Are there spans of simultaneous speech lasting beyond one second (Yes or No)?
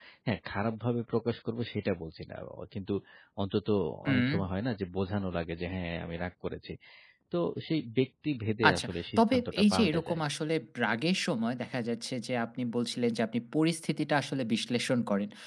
Yes